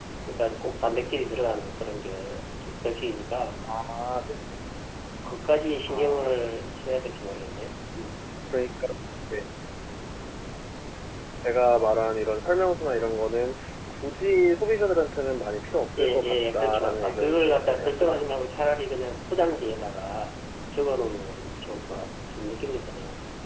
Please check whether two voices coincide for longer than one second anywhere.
Yes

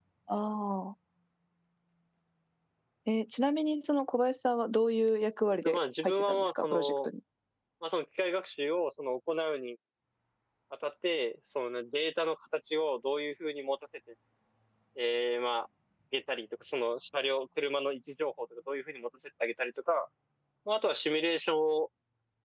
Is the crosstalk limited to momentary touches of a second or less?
No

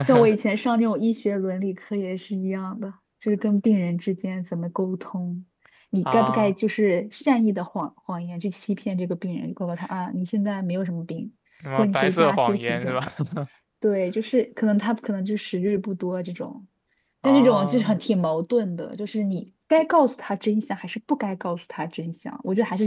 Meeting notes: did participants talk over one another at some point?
Yes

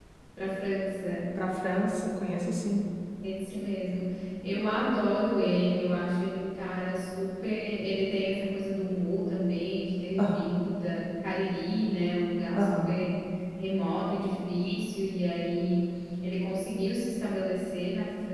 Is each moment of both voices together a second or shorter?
Yes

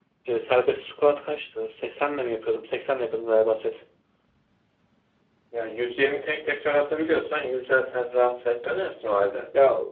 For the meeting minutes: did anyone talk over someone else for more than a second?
No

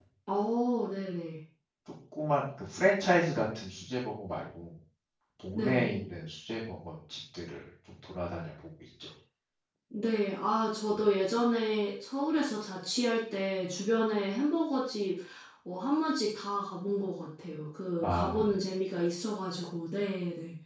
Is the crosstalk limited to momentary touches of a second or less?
Yes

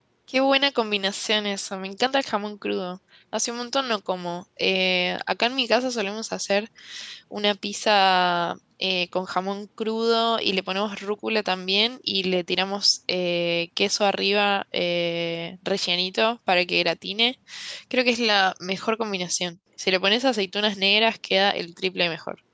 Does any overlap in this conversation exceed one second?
No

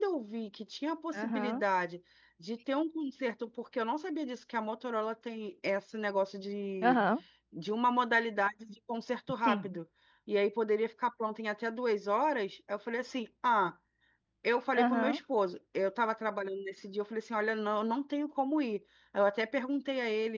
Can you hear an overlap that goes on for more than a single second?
No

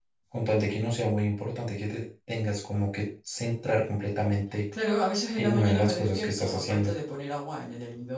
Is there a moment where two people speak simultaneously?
Yes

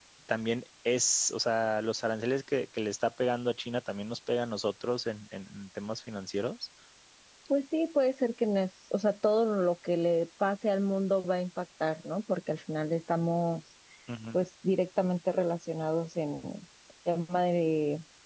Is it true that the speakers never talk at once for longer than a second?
Yes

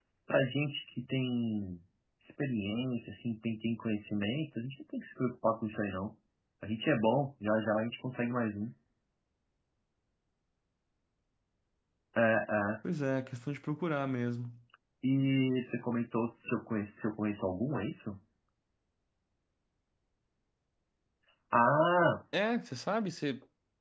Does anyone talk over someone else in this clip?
No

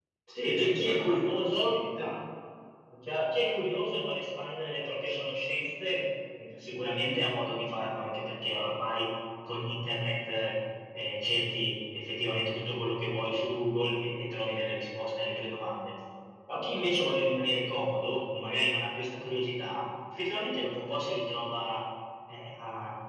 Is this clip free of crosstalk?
No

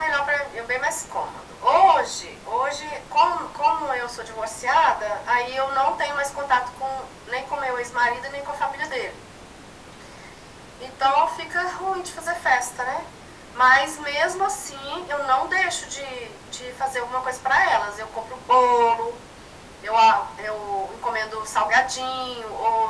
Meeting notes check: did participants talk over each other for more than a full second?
No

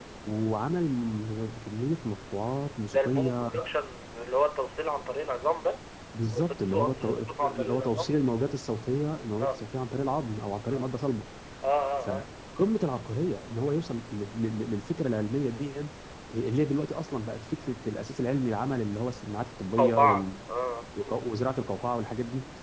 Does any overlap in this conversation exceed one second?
Yes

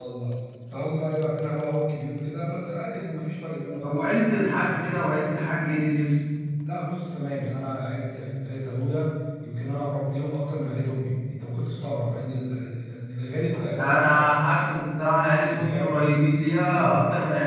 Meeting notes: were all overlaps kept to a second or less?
No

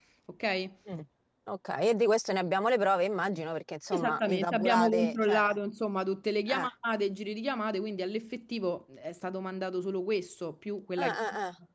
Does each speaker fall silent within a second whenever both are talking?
No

